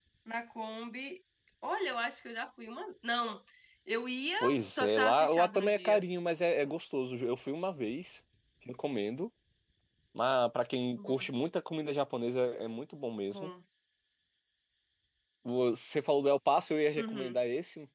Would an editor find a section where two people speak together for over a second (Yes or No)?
Yes